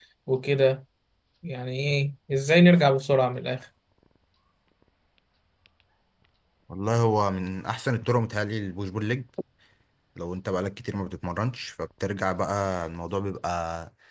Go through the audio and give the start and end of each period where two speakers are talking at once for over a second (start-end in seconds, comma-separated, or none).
none